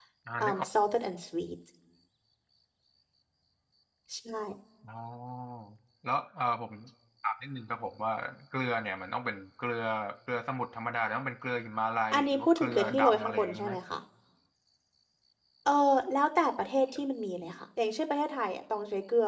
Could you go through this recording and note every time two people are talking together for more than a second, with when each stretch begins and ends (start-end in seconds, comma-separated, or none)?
12.1-13.7